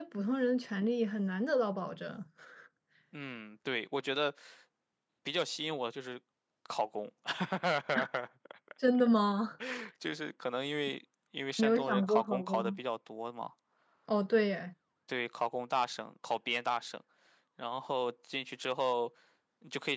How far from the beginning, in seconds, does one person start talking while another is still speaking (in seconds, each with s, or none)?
11.6 s